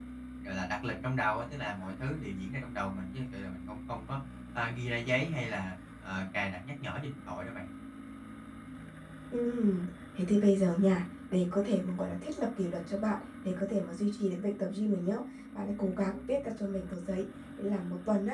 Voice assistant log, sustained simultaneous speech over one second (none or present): none